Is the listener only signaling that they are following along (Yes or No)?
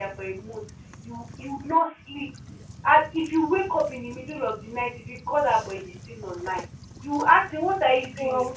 Yes